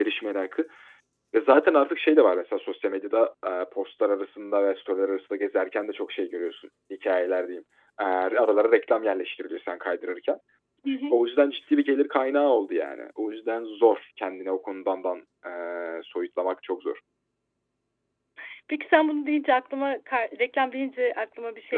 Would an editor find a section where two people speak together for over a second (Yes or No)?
No